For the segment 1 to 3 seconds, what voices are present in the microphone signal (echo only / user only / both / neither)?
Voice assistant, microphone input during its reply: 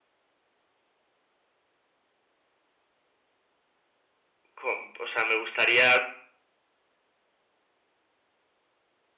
neither